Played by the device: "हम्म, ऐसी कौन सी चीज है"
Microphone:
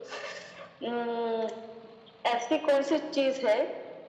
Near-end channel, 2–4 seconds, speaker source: echo only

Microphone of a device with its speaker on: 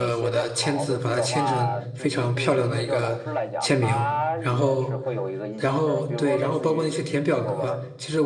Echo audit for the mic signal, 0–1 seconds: both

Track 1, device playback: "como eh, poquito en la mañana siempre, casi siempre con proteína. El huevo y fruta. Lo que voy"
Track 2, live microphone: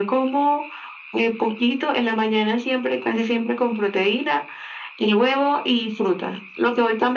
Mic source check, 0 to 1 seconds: echo only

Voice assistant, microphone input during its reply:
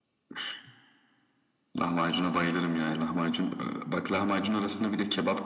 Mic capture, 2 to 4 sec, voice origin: echo only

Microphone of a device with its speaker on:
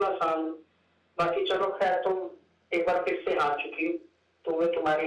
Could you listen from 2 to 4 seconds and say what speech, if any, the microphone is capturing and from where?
echo only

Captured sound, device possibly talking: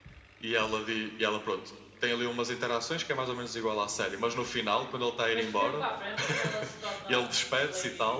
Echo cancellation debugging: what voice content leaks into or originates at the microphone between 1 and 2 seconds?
echo only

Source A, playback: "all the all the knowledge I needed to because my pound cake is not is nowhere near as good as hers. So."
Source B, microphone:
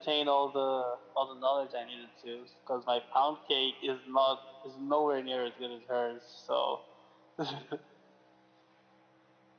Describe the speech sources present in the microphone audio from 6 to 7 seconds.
echo only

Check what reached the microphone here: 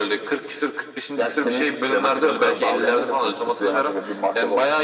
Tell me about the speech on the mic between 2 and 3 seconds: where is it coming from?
echo only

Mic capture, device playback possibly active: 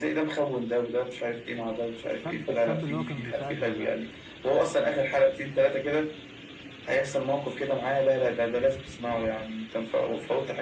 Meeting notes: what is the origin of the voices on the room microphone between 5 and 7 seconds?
echo only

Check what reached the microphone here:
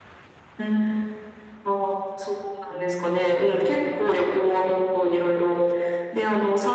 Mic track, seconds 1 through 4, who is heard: both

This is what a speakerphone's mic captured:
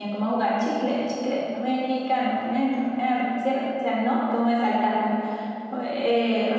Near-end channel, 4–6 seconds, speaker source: user only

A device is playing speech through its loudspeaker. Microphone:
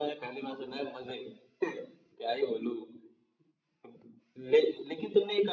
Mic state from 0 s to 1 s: echo only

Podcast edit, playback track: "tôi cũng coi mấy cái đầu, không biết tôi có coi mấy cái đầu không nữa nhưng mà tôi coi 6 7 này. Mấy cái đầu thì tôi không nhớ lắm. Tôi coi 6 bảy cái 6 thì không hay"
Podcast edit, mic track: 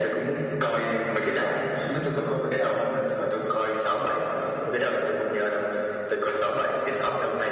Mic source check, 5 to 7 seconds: echo only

